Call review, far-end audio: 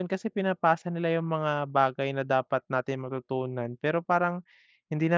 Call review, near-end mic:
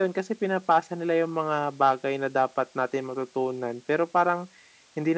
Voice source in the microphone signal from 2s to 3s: echo only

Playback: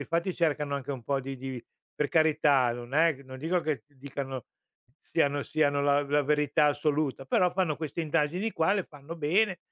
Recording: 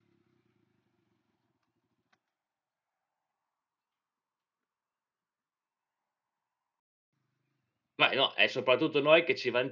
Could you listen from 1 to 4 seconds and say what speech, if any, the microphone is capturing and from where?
neither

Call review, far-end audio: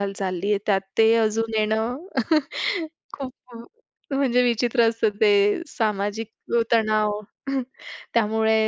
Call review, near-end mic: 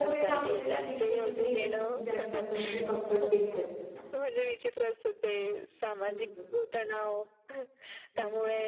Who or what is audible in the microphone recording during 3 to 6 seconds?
both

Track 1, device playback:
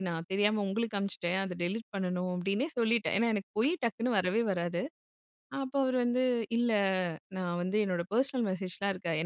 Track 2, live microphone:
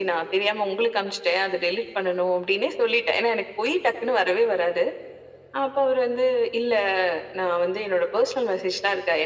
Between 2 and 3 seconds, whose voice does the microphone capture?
echo only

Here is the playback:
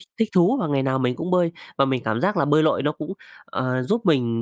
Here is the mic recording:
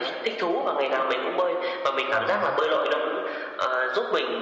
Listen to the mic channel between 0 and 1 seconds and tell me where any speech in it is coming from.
echo only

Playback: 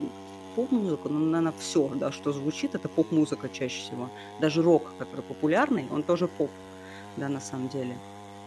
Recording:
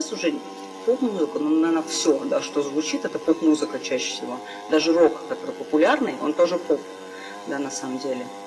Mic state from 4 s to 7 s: echo only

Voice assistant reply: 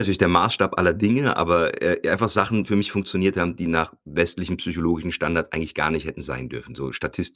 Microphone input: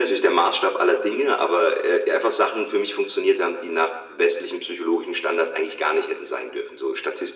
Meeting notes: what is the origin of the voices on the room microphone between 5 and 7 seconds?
echo only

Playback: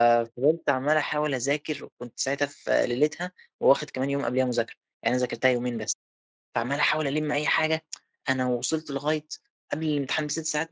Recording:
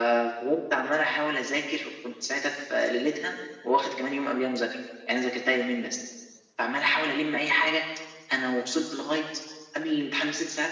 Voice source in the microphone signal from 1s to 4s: echo only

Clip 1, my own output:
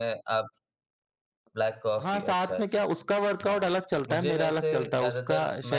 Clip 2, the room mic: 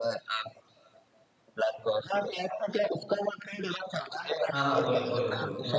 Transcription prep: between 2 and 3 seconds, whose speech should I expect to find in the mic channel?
echo only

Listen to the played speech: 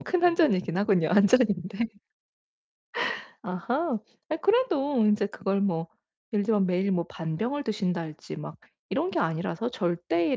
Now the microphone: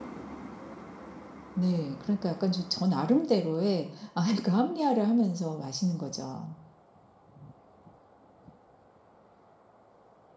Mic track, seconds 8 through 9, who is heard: neither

